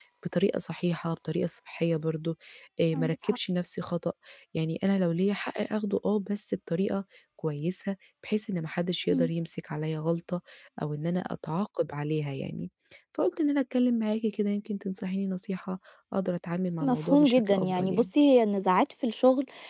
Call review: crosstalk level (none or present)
present